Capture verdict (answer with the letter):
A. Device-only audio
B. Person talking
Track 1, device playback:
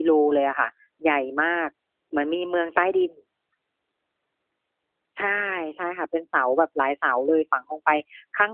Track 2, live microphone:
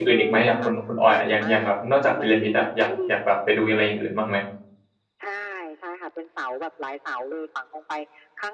B